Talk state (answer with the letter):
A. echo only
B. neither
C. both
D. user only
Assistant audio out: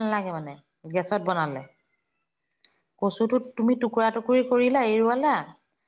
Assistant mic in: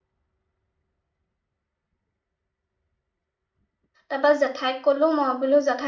D